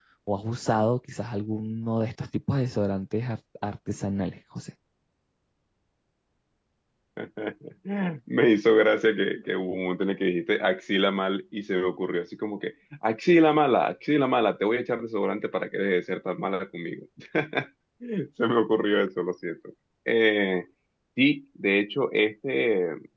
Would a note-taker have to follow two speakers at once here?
No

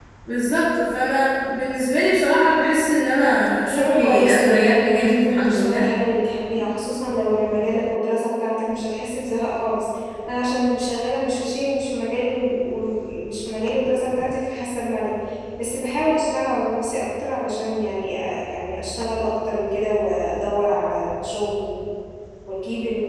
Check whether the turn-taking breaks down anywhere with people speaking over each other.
Yes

